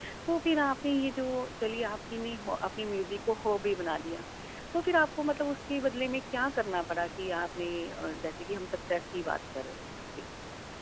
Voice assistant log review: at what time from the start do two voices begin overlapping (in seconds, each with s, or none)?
none